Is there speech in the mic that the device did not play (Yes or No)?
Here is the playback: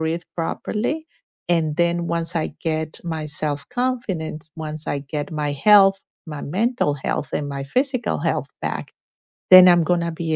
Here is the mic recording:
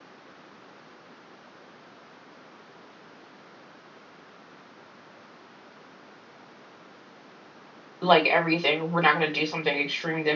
Yes